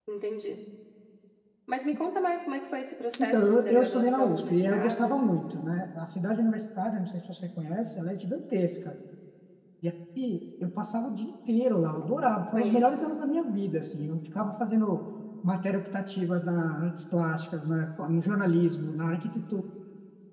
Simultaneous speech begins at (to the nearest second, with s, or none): 3 s